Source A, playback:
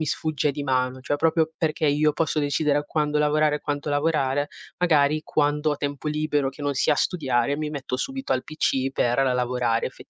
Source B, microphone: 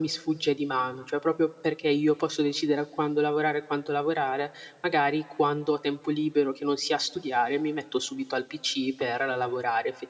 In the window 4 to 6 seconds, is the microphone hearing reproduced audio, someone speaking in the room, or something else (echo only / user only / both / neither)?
echo only